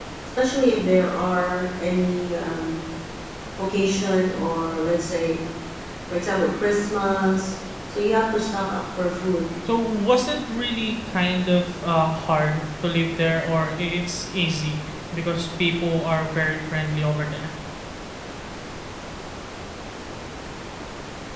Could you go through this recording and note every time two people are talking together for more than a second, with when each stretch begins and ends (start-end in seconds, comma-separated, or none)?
none